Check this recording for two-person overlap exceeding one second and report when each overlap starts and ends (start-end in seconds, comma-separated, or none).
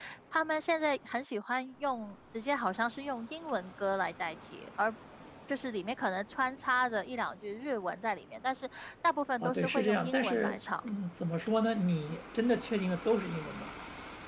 9.4-10.6